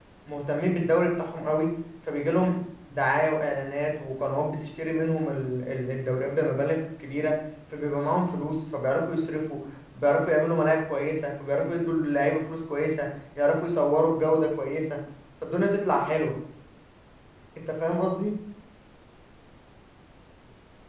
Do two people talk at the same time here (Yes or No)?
No